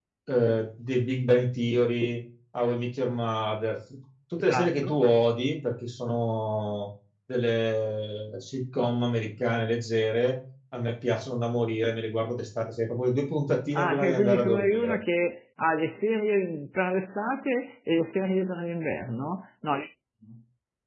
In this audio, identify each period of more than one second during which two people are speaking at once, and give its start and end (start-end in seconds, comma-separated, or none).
13.8-15.0